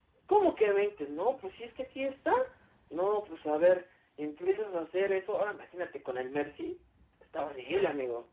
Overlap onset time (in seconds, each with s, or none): none